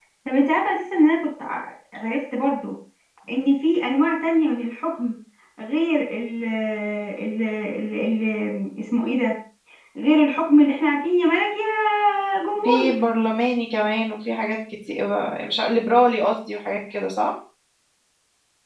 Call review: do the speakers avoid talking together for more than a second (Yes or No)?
Yes